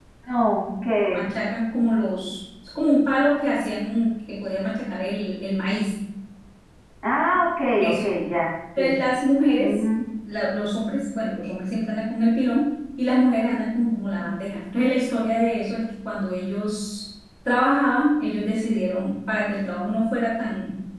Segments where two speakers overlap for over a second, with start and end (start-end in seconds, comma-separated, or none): none